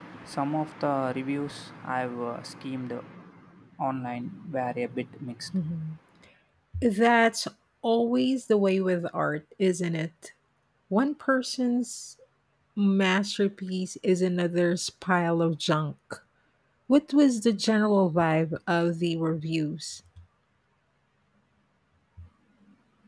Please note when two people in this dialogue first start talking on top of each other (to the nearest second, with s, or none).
none